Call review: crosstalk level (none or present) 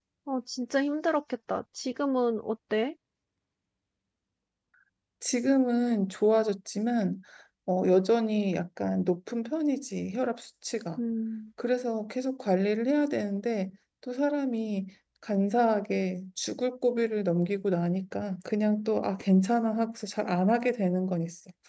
none